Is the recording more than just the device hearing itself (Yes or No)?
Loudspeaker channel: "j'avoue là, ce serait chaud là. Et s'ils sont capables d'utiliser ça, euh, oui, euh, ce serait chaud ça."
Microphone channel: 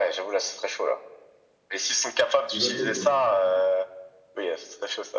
Yes